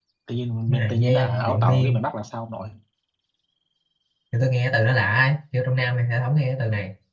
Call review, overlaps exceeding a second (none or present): present